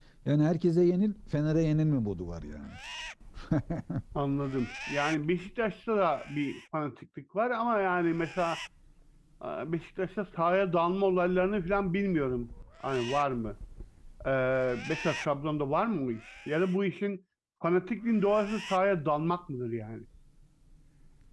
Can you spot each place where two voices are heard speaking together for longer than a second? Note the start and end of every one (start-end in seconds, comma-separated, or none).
none